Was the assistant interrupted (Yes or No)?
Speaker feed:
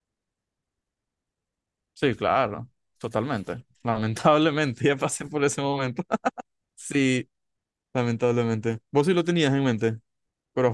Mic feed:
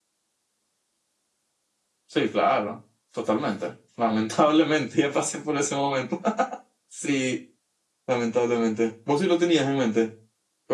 No